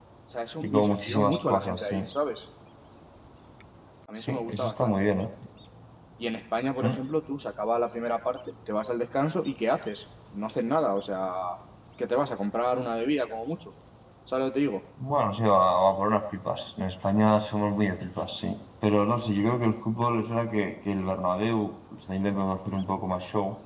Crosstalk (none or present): present